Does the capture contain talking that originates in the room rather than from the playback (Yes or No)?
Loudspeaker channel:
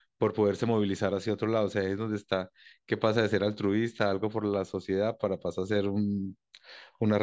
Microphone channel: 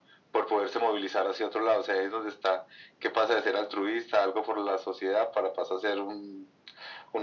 No